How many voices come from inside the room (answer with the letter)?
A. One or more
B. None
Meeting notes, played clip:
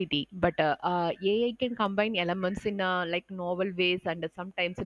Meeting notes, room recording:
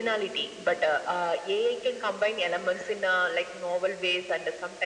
B